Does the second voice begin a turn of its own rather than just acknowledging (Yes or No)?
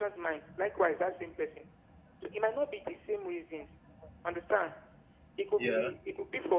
No